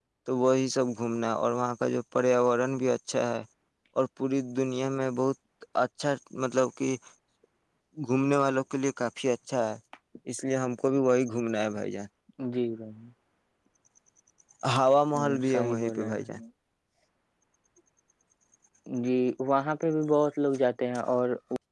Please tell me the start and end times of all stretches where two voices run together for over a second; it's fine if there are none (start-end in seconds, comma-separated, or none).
15.1-16.3